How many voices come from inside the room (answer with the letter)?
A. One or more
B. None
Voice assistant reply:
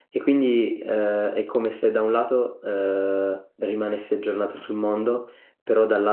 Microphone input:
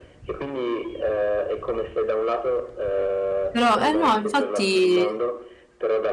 A